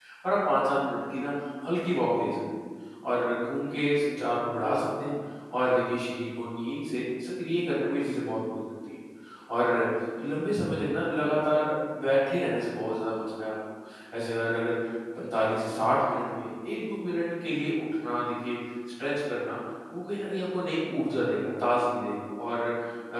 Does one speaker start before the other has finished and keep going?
No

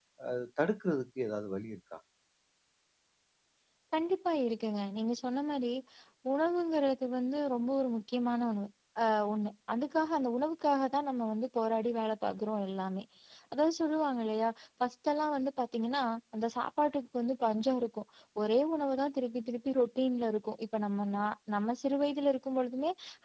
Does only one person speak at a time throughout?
Yes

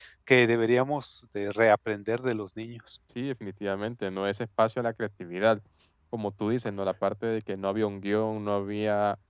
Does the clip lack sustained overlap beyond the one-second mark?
Yes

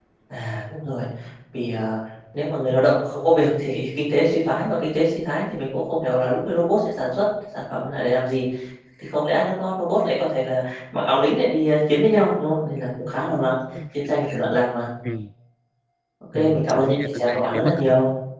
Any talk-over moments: Yes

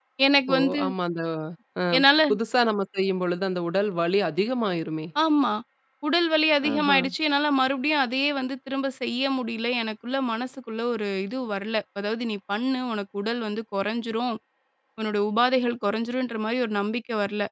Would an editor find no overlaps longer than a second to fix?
Yes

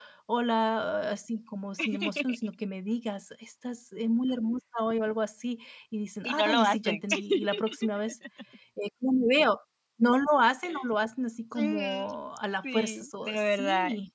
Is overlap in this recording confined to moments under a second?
No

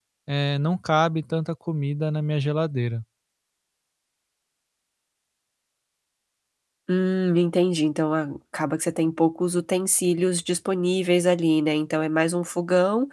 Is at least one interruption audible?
No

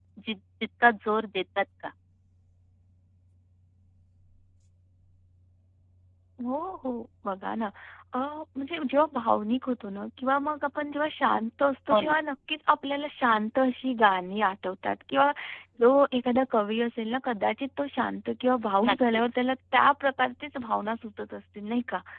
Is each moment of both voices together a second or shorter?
Yes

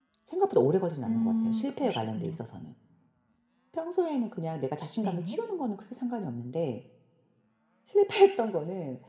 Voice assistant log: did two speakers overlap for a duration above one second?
Yes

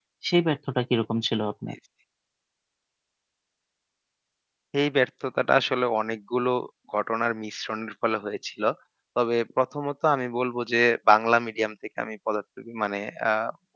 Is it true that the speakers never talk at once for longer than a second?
Yes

